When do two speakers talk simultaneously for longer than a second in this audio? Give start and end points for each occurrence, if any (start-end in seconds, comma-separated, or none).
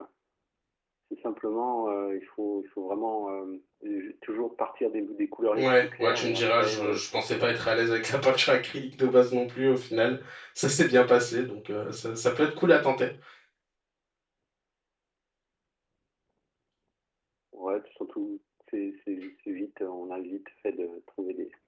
5.6-7.4